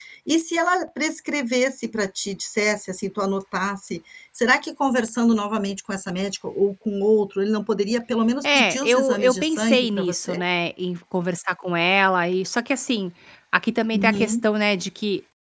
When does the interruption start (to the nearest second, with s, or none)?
8 s